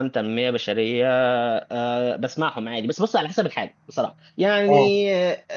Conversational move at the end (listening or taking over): listening